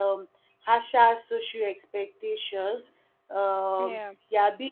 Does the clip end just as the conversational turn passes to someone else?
No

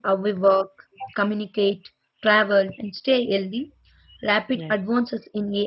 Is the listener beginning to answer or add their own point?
No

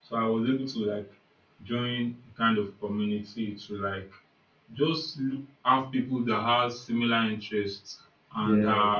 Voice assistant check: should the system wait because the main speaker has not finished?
Yes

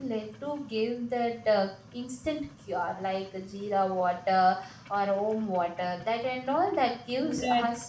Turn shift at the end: Yes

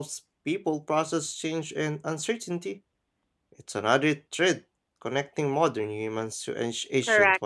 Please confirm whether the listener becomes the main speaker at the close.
Yes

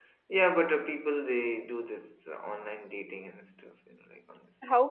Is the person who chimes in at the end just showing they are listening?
No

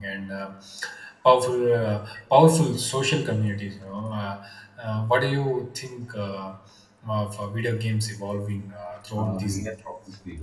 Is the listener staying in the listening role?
No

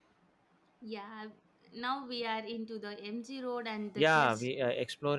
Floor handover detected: Yes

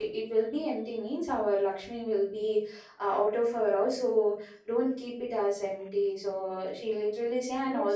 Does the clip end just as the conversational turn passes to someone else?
Yes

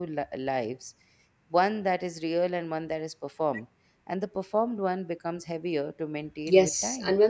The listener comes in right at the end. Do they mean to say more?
Yes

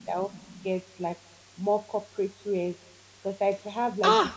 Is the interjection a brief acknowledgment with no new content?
No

